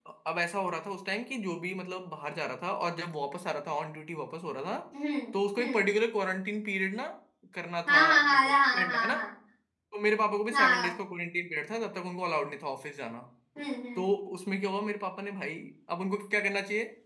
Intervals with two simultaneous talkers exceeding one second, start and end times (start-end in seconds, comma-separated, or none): 7.9-9.1